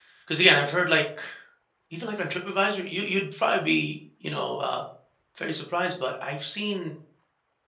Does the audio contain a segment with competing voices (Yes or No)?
No